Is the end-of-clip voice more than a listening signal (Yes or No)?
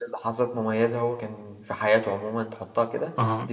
No